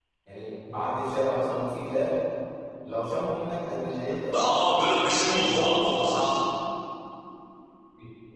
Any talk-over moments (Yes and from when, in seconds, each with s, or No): Yes, from 4.3 s